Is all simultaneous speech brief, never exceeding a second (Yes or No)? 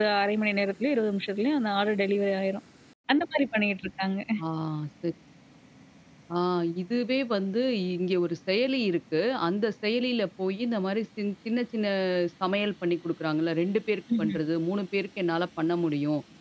Yes